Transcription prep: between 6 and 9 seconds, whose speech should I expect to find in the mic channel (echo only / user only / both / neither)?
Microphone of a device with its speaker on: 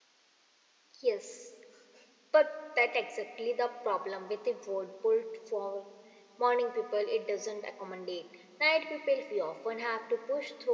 user only